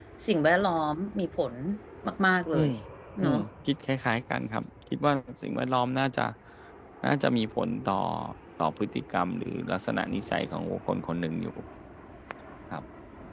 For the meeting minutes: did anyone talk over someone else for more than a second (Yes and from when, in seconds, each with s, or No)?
No